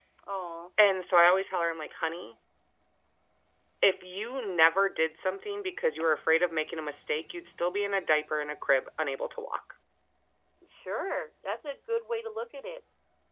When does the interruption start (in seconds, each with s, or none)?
none